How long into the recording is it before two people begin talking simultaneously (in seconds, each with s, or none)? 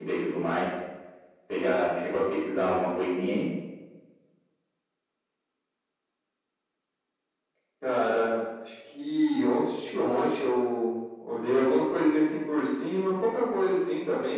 none